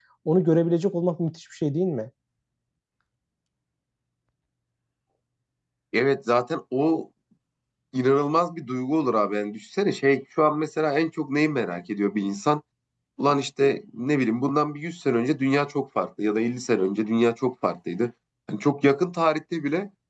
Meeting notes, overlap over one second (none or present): none